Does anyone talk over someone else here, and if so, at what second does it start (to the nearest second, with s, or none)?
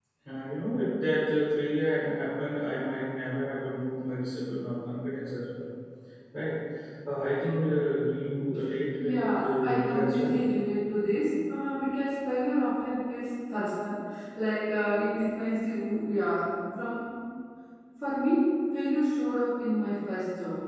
9 s